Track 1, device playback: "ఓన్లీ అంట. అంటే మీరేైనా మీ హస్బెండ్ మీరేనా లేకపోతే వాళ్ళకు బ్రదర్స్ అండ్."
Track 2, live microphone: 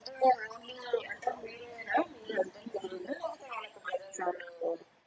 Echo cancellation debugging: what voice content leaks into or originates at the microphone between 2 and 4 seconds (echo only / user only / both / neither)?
echo only